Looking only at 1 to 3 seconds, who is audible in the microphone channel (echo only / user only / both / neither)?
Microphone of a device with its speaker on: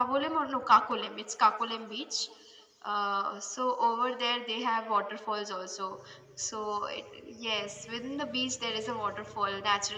echo only